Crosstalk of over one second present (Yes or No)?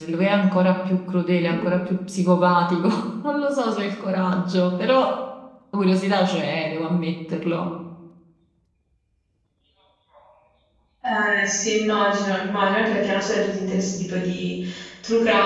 No